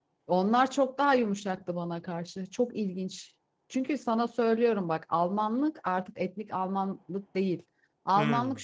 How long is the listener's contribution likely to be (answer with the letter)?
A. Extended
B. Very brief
B